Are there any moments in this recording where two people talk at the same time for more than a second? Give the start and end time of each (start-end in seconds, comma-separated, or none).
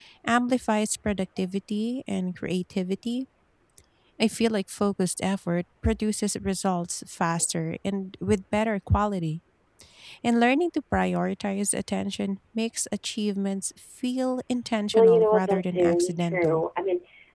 14.9-16.6